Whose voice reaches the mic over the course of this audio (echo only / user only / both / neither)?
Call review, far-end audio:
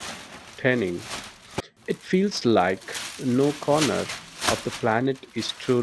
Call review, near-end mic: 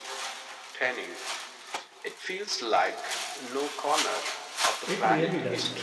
both